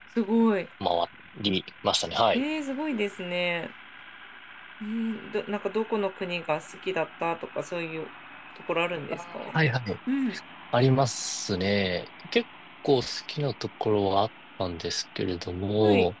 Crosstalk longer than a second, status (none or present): none